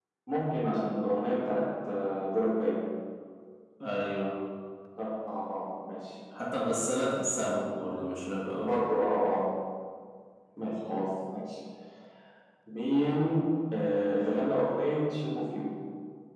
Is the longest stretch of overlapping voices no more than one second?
Yes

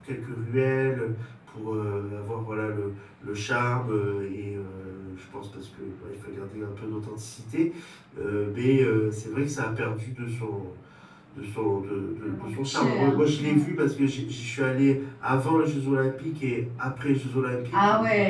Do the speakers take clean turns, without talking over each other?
No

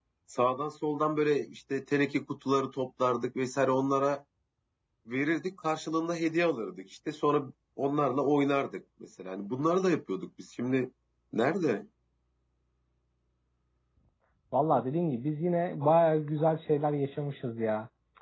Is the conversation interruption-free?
Yes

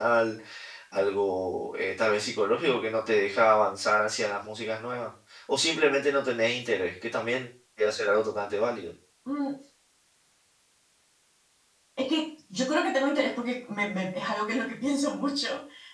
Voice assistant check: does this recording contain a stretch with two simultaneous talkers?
No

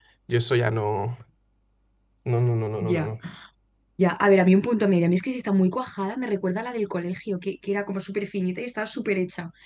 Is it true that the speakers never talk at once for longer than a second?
Yes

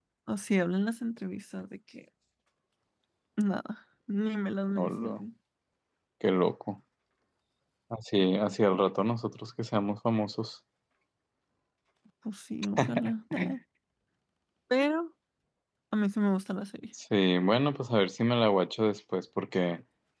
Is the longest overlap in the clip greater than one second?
No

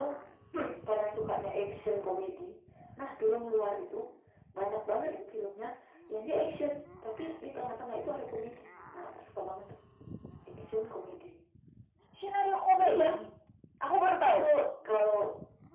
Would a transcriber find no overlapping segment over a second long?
Yes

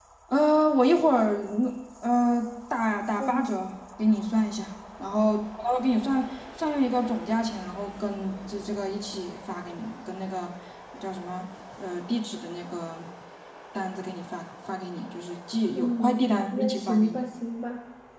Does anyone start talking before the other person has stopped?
Yes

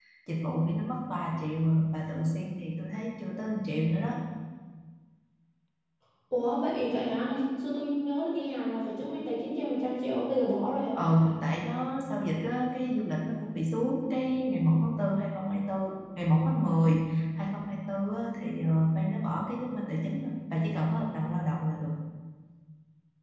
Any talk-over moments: No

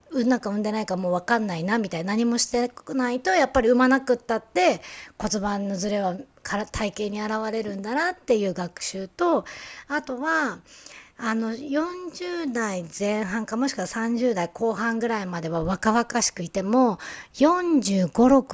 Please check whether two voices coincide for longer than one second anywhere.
No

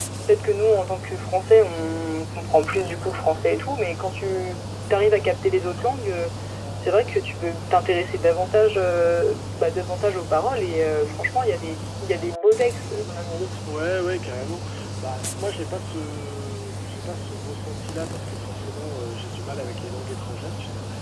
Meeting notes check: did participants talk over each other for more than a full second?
No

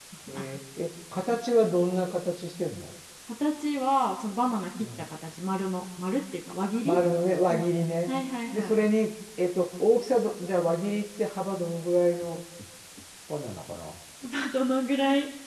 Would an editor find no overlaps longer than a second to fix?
Yes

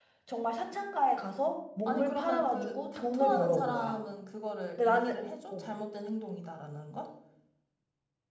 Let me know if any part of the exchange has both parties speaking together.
Yes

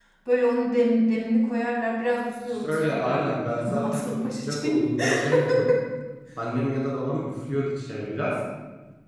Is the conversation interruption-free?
No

